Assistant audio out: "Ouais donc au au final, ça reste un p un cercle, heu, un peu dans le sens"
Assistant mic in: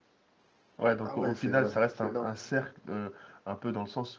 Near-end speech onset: 1 s

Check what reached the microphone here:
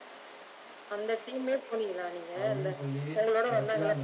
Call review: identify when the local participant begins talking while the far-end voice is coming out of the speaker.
2 s

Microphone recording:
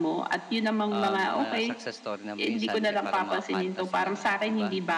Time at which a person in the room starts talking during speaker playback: 1 s

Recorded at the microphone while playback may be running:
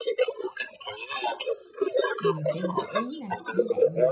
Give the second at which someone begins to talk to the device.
2 s

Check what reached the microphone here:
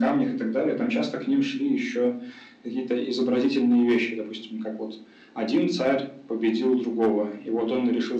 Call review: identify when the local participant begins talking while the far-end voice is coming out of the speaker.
none

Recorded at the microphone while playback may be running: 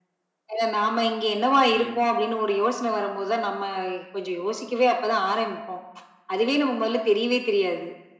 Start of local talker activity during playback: 2 s

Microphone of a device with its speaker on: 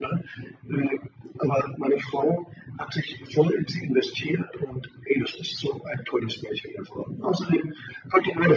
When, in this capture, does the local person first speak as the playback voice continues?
none

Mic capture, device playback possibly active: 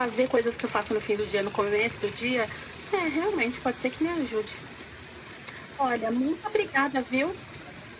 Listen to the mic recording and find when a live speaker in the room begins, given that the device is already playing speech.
none

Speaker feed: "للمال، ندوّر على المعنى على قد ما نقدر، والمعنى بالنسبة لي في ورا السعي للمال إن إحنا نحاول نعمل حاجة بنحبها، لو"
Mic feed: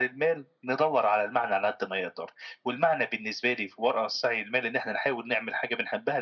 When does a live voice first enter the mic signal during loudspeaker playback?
none

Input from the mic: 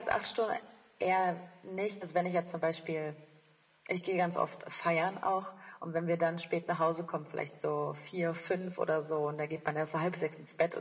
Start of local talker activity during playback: none

